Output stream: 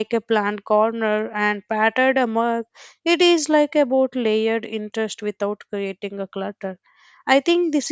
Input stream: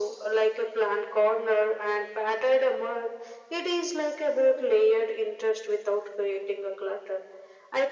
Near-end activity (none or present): none